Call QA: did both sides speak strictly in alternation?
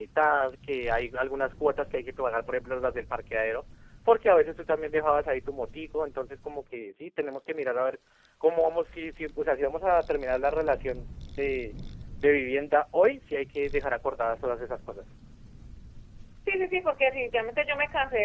Yes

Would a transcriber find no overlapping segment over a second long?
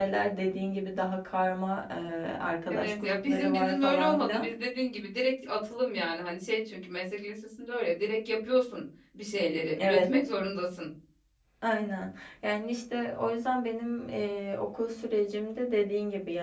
No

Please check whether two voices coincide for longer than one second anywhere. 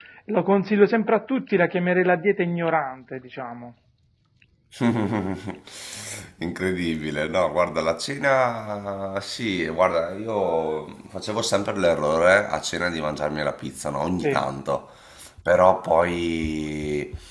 No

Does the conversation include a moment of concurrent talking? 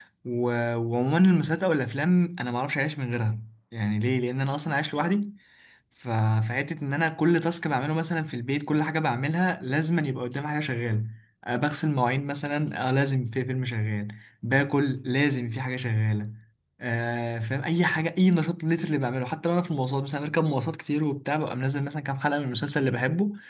No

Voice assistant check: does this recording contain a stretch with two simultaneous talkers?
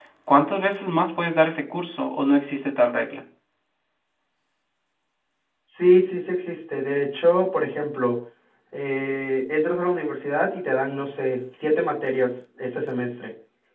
No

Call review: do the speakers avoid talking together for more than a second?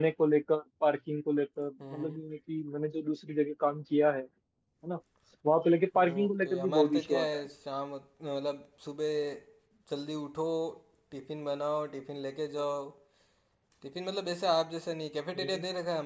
No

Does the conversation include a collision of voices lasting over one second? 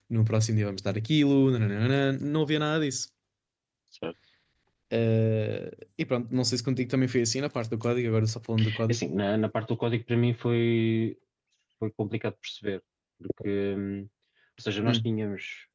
No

